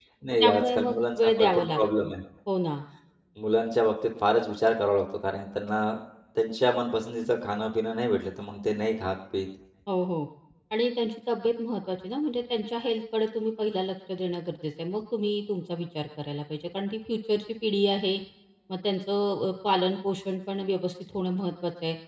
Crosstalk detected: Yes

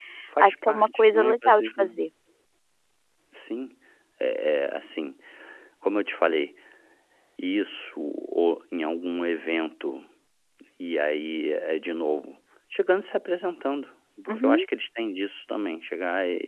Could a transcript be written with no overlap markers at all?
No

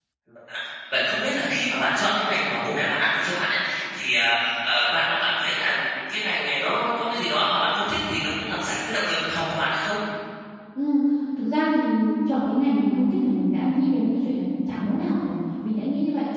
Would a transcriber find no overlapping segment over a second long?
Yes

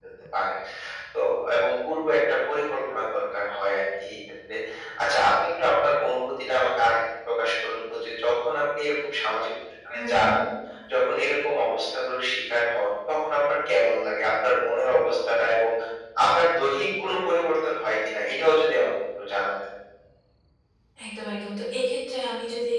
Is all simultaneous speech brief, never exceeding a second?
Yes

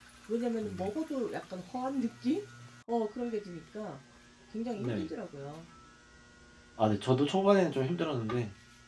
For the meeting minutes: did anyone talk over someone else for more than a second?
No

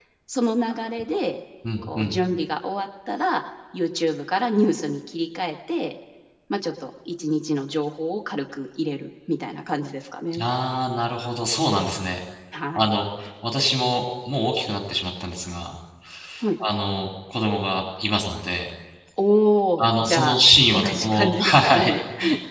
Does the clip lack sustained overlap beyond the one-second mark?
No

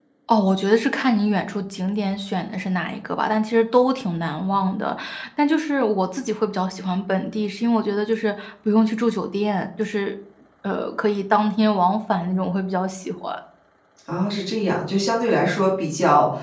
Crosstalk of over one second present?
No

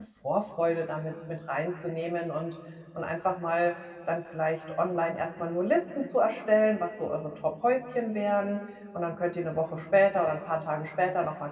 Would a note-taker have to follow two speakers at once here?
No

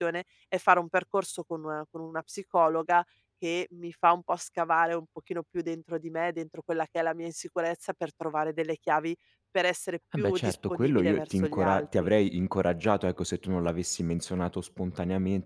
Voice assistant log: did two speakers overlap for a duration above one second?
Yes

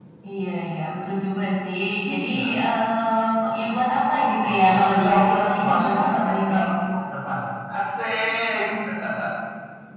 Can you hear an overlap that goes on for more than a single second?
Yes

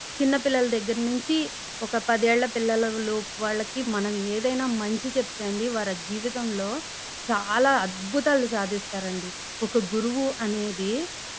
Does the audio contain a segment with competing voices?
No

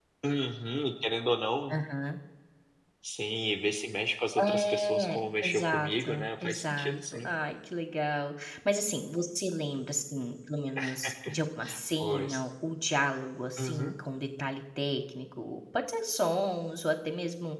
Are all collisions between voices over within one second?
No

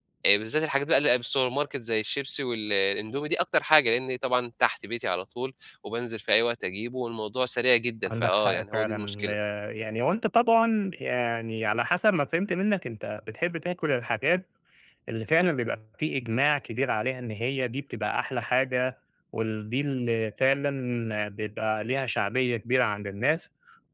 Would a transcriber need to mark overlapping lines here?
Yes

